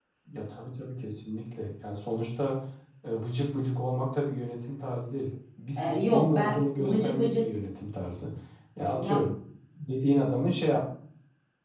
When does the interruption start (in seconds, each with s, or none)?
5.8 s